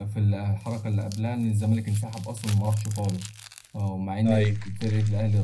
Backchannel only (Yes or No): Yes